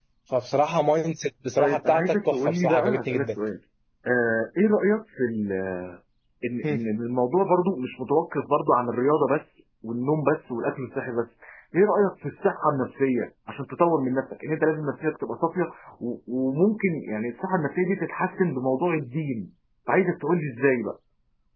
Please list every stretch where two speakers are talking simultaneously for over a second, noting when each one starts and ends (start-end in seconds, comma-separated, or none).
1.6-3.3